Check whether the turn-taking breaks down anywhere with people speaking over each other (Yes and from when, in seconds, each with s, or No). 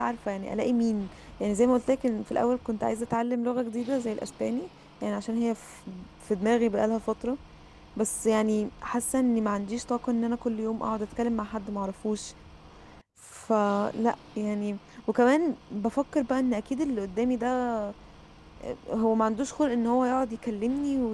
No